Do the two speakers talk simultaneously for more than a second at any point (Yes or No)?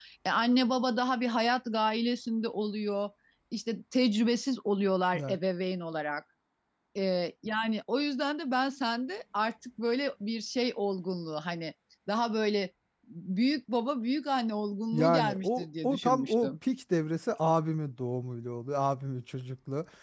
Yes